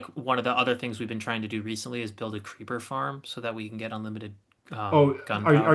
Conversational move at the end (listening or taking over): taking over